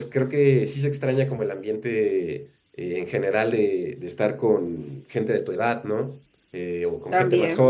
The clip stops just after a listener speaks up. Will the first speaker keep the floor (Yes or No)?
Yes